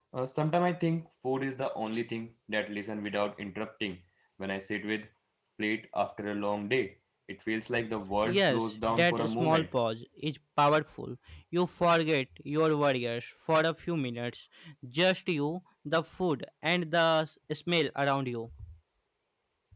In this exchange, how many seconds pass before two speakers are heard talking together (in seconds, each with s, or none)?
8.1 s